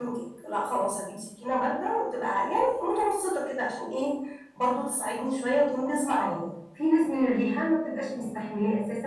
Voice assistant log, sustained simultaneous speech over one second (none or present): none